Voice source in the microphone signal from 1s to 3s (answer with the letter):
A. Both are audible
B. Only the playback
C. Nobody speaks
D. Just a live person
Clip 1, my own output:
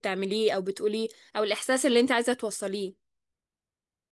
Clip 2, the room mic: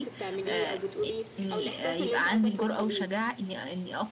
A